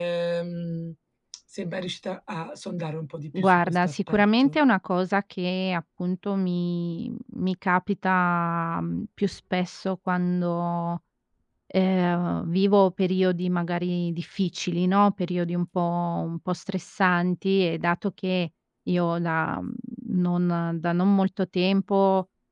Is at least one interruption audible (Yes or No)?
Yes